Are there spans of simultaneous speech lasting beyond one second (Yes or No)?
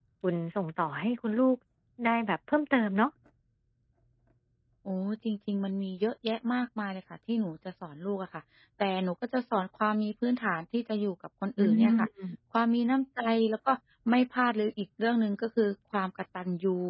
No